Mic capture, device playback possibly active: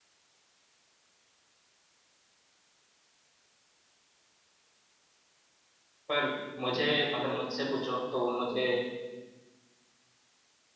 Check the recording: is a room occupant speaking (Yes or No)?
Yes